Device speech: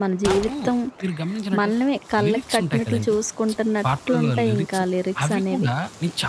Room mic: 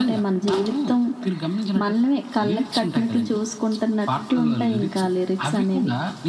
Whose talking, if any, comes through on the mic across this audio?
echo only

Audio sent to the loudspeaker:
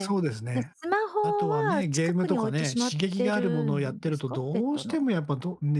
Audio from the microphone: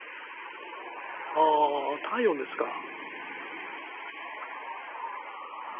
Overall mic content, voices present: user only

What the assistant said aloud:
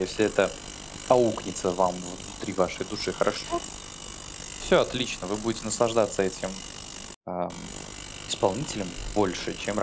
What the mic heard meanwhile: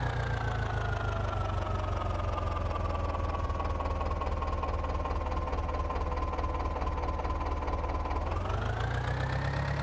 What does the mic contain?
neither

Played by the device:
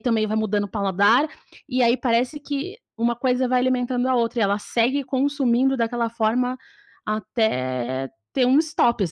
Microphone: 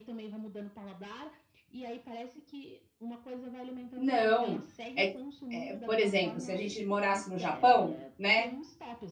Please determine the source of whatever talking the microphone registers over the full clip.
both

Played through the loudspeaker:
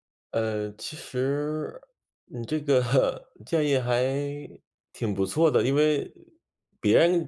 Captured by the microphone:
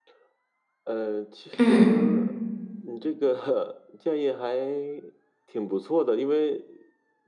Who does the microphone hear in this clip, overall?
both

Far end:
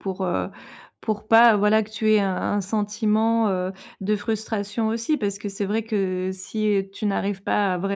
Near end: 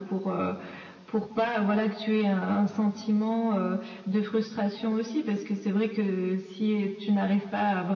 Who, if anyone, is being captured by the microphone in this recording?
echo only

